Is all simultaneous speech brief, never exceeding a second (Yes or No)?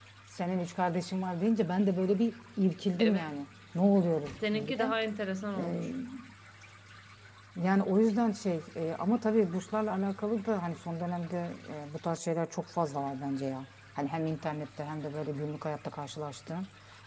Yes